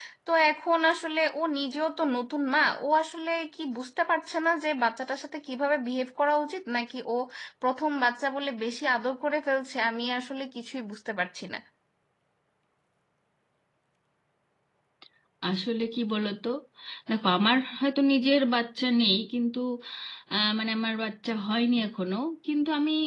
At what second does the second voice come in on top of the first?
none

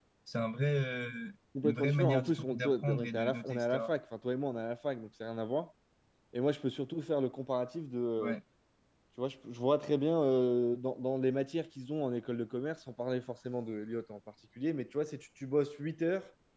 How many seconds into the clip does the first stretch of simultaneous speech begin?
2 s

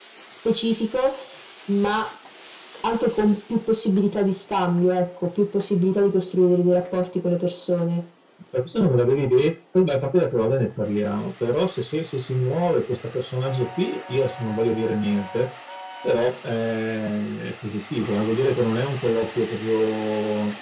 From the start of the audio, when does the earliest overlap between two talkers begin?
none

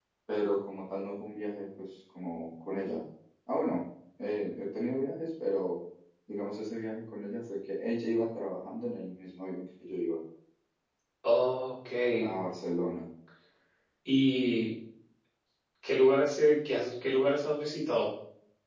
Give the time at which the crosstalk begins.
none

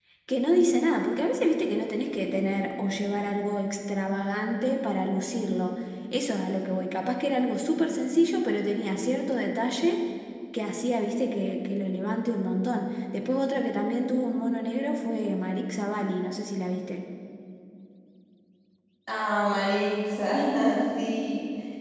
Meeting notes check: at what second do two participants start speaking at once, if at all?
none

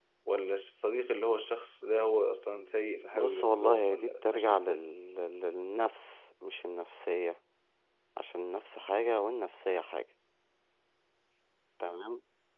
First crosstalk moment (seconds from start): 3 s

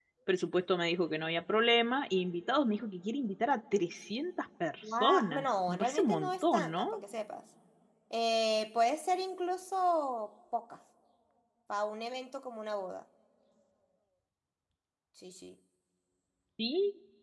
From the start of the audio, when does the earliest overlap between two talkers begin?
5 s

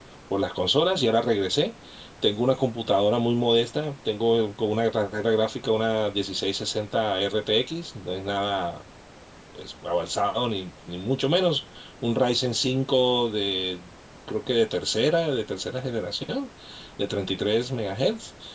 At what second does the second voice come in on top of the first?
none

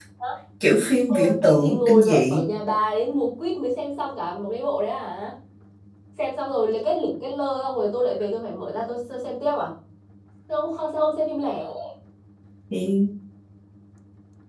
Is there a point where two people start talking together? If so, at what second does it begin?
1 s

